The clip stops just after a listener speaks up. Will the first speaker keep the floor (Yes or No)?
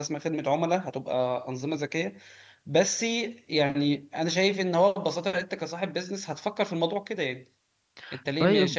Yes